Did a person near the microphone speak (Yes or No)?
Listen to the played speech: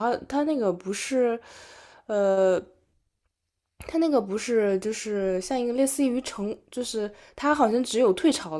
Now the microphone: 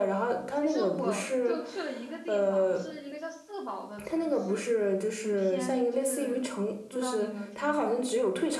Yes